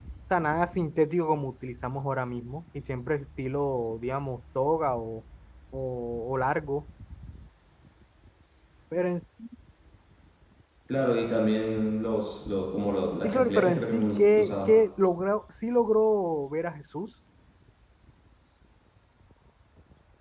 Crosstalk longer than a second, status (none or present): present